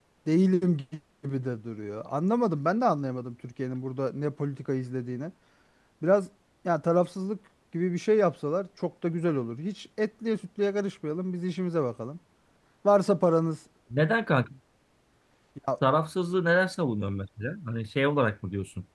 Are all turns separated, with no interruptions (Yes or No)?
Yes